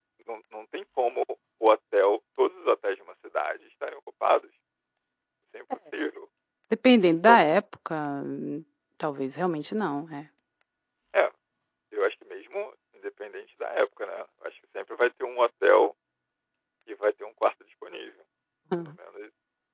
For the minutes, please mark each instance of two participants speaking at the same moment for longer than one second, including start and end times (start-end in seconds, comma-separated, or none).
none